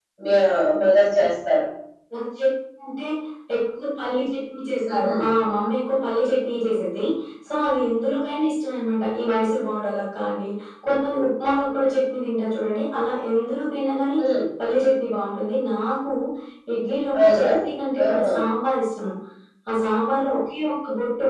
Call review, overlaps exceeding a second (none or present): none